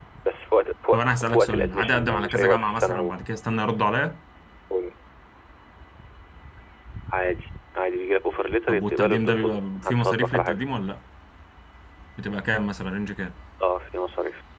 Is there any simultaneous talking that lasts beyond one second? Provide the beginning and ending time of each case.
0.9-3.2, 8.7-10.6

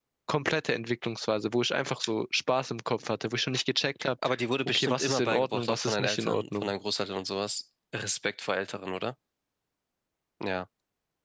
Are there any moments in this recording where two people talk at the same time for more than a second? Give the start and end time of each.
4.7-6.7

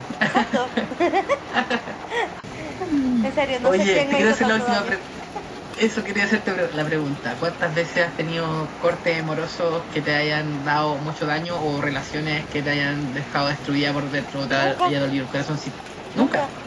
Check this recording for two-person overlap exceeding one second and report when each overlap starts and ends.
3.6-4.9

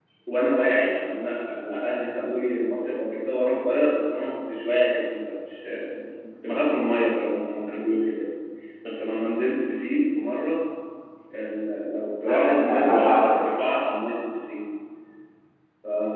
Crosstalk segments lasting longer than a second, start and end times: 12.3-13.5

